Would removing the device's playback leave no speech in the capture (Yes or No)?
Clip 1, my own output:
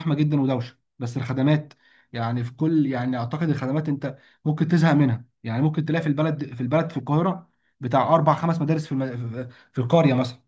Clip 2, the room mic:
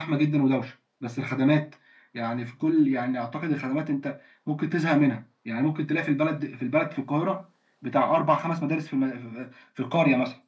Yes